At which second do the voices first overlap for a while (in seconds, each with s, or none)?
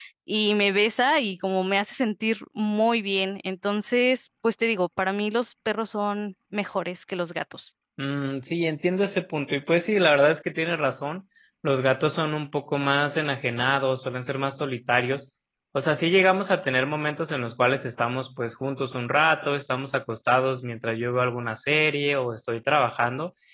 none